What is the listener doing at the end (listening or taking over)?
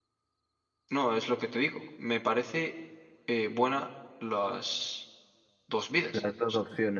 taking over